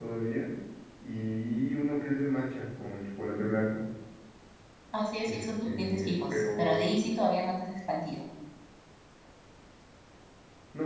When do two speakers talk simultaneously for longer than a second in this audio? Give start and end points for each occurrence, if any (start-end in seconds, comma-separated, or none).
5.3-6.8